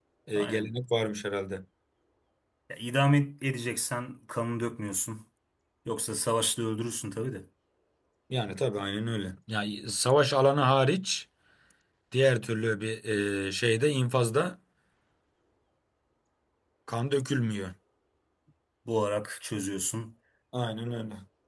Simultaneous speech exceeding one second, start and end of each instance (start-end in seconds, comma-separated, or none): none